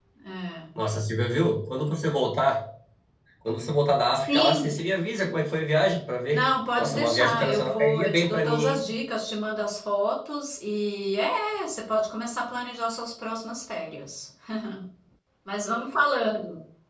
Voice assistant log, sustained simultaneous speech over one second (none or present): present